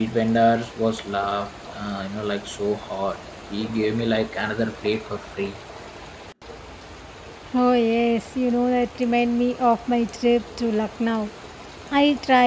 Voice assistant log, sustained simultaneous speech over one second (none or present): none